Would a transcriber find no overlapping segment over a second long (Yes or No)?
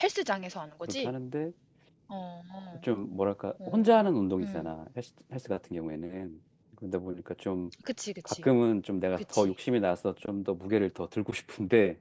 Yes